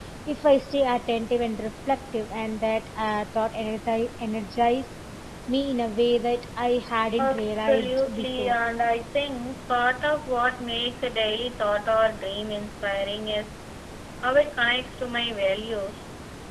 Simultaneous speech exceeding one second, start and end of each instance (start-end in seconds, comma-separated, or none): 7.2-8.6